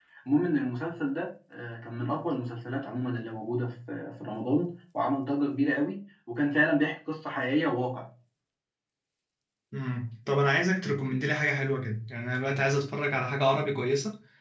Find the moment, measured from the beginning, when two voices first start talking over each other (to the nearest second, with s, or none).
none